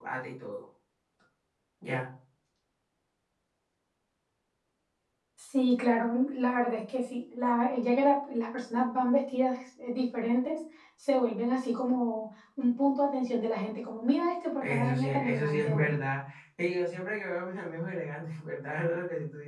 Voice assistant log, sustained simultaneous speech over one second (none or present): present